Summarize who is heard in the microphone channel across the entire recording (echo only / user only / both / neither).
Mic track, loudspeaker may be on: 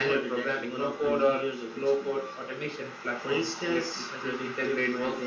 echo only